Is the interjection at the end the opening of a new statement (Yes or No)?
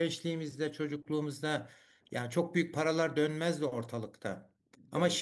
No